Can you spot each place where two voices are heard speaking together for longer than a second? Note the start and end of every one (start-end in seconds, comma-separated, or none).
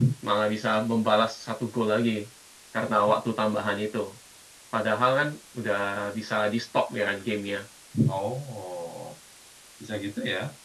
none